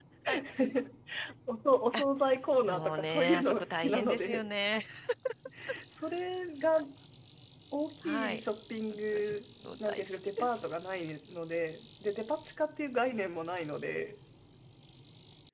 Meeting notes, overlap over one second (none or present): present